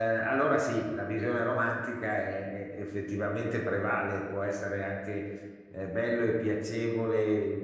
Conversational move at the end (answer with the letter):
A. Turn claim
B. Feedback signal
B